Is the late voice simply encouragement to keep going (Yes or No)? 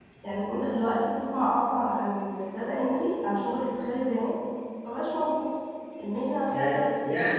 No